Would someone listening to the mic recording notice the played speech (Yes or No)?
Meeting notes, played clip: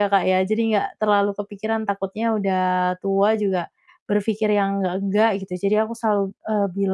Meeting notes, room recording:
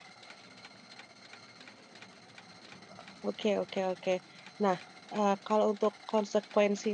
No